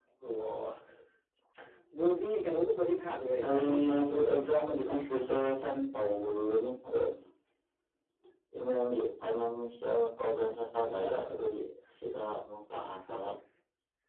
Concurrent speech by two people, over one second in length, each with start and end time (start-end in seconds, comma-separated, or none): 3.5-5.0